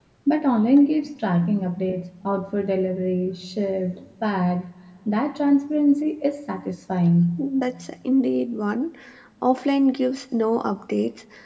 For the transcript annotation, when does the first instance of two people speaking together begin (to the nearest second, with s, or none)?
none